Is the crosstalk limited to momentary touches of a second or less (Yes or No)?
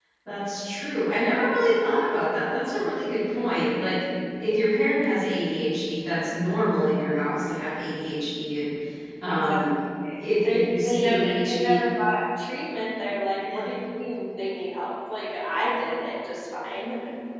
No